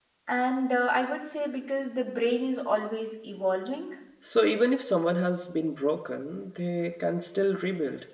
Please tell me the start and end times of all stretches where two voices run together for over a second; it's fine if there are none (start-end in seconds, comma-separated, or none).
none